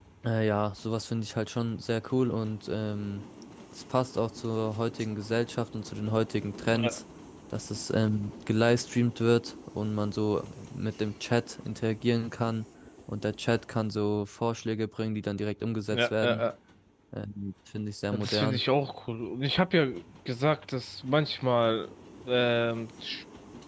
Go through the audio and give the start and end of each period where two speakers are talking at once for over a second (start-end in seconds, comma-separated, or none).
none